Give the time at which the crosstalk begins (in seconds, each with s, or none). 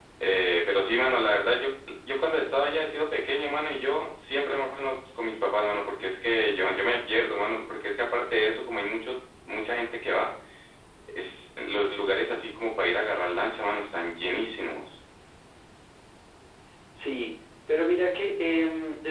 none